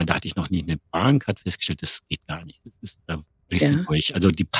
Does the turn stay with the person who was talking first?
Yes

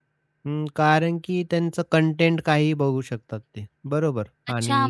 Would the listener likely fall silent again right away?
No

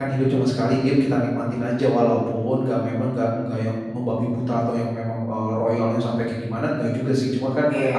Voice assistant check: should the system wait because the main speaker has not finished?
Yes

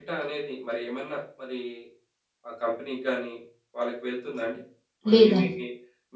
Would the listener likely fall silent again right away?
Yes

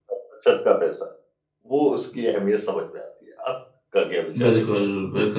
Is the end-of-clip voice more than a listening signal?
Yes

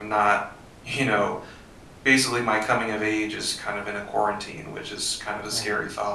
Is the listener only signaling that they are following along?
No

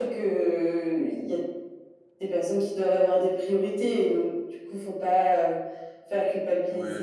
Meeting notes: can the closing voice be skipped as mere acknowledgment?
No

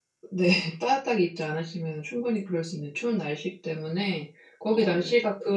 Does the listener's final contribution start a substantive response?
No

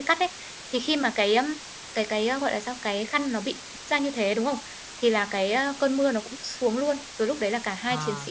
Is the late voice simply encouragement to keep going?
Yes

